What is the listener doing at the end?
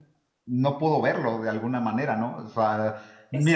listening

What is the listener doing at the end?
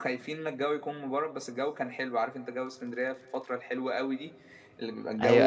taking over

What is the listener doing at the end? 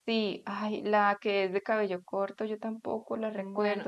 listening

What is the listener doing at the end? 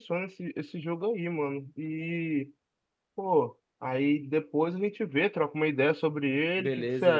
taking over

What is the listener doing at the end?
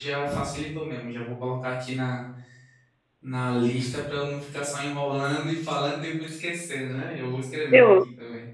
taking over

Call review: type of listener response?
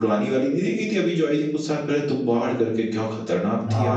taking over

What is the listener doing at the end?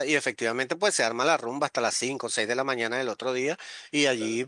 listening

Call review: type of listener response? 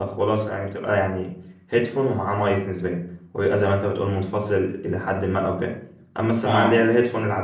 listening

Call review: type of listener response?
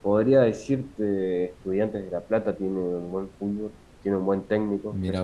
listening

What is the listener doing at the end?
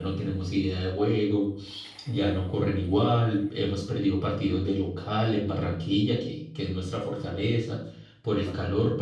listening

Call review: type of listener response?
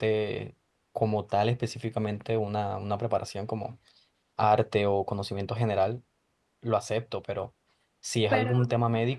listening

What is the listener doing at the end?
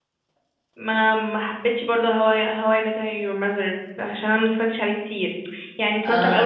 listening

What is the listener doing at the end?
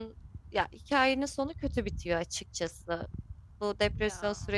listening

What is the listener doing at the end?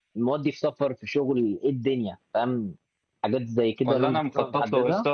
taking over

